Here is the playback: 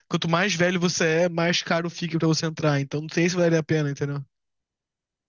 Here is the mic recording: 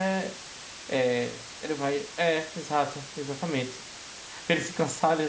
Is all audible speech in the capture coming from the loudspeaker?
No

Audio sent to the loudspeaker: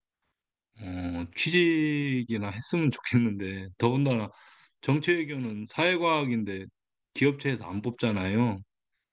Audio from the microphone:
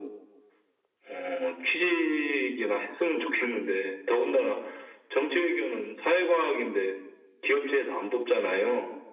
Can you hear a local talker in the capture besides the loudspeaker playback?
No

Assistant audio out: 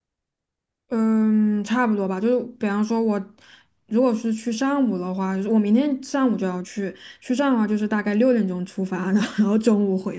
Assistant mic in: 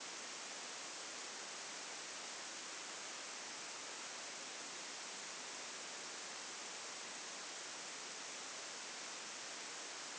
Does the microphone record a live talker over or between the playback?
No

